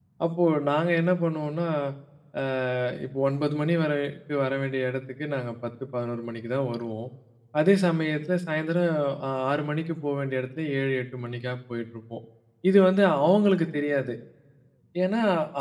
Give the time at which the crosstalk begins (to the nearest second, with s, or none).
none